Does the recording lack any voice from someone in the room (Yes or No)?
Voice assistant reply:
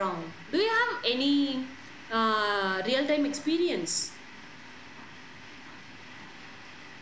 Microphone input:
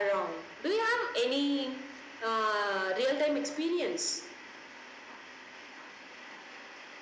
Yes